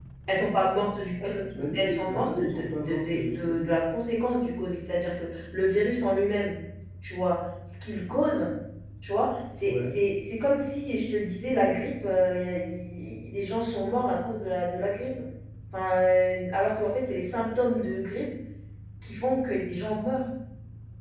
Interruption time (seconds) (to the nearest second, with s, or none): 2 s